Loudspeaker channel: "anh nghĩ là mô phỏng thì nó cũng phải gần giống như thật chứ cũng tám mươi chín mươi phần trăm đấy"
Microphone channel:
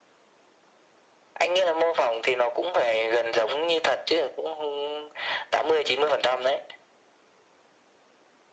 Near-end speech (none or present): none